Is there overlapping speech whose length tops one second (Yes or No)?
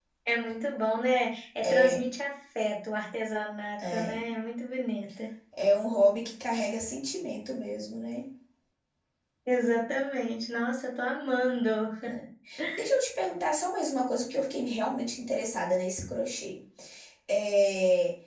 No